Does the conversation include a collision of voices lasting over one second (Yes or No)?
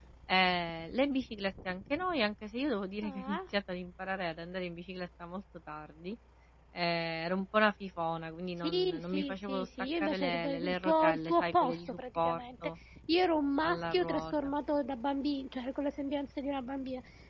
Yes